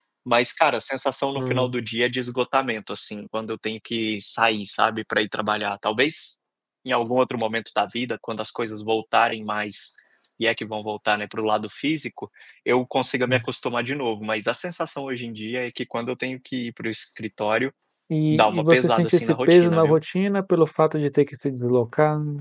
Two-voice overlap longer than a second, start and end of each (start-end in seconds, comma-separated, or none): 18.3-20.0